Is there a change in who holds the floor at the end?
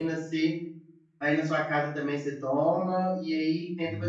No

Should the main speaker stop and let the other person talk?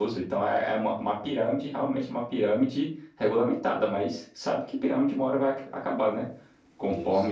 No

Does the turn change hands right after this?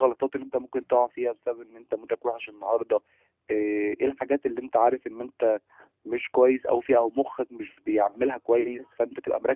No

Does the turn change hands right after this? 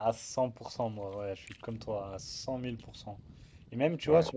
No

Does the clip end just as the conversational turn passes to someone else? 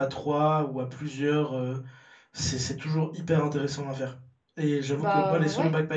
No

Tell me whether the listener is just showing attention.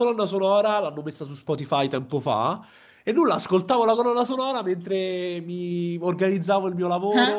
Yes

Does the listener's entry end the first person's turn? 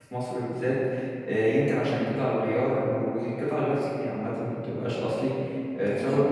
No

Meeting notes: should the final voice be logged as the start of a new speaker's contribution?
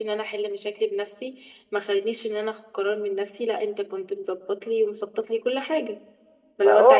Yes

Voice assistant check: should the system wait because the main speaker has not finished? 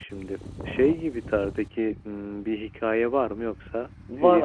No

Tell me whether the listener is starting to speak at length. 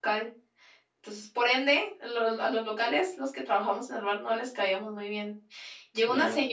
No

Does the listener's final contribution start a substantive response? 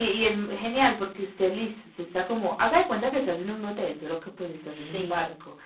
No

